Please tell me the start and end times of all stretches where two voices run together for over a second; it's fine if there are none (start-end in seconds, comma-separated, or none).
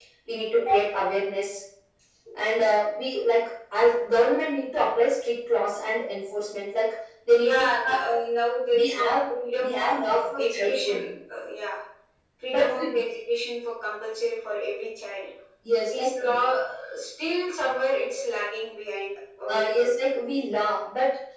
9.6-11.0